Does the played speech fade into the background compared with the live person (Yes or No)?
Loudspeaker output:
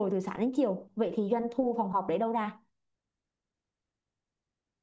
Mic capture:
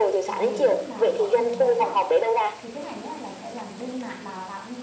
No